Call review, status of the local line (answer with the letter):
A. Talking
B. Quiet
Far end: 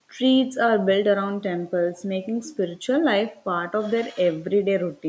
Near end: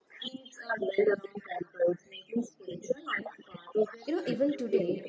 A